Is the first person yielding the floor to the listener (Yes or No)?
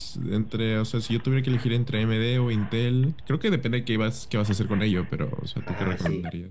Yes